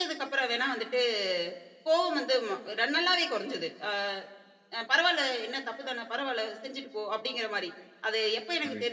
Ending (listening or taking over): listening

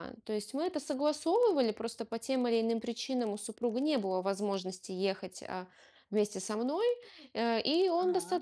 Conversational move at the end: listening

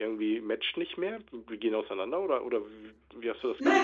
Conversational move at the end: taking over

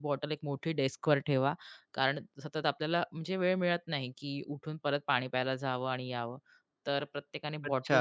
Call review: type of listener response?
taking over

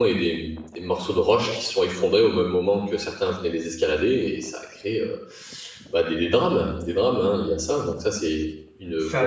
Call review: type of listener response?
taking over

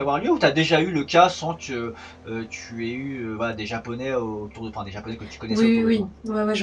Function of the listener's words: taking over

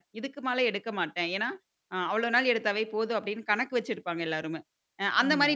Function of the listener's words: listening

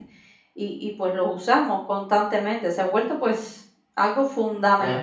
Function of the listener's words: listening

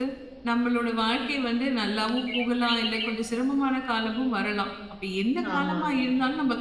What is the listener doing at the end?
listening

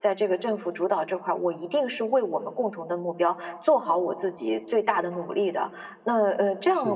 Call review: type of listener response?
listening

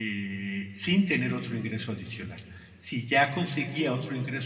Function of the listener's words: listening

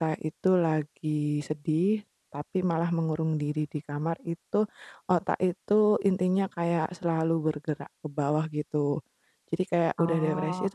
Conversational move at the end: listening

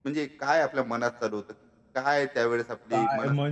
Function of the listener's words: taking over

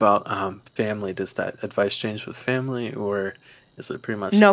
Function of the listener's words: taking over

